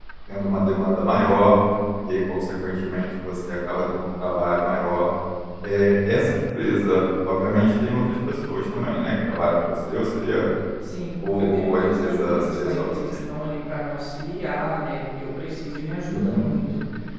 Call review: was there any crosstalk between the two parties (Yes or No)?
Yes